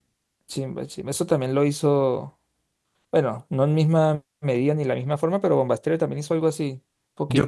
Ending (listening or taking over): taking over